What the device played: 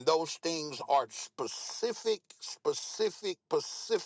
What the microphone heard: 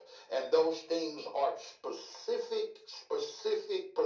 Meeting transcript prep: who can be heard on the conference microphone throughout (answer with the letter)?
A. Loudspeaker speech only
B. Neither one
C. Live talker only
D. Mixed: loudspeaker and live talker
A